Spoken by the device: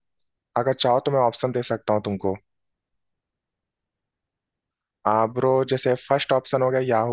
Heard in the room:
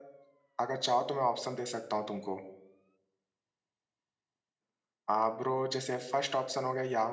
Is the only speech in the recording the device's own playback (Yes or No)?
Yes